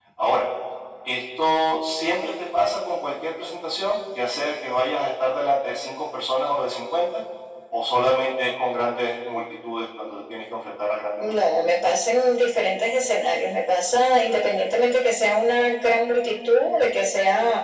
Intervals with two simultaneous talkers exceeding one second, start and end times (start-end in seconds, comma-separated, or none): none